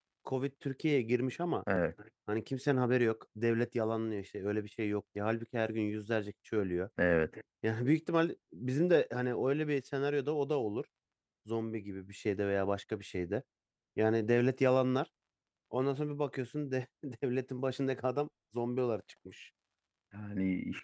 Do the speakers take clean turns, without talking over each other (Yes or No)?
Yes